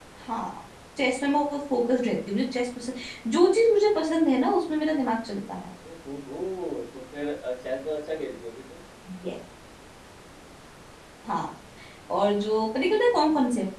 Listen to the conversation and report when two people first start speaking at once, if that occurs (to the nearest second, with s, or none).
none